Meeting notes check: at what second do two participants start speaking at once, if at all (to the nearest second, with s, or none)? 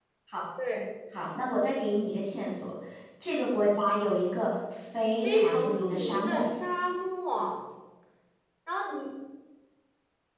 5 s